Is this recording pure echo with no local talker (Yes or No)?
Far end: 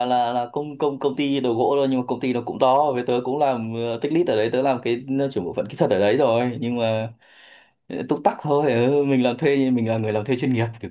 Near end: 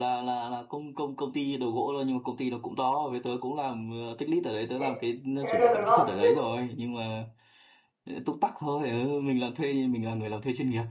No